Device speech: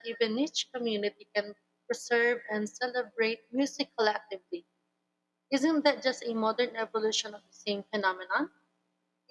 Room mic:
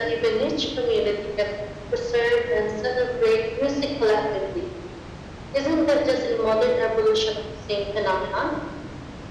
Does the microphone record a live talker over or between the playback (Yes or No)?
No